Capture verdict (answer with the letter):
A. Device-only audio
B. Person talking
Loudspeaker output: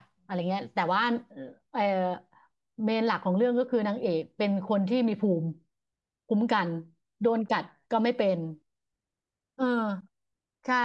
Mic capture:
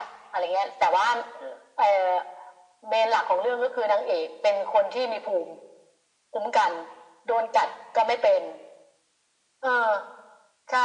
A